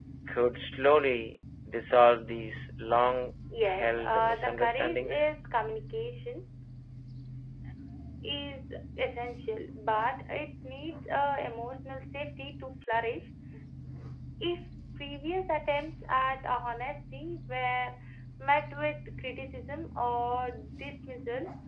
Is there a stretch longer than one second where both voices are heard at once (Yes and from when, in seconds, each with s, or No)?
Yes, from 3.5 s